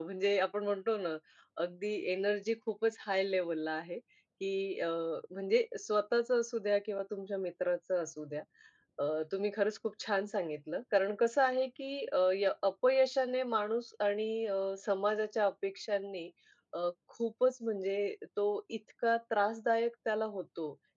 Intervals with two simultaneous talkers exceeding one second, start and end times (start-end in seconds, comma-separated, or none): none